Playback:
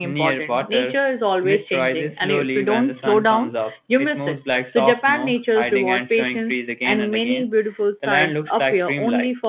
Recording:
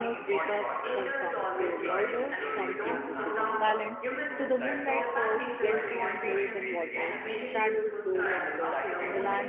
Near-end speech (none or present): present